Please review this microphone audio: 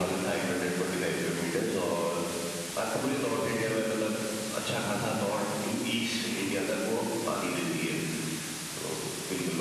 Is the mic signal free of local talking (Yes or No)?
Yes